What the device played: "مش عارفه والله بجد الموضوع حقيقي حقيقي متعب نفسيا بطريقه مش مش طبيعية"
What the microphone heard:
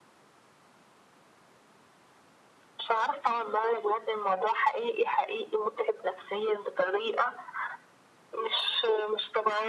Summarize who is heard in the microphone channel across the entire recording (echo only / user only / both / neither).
echo only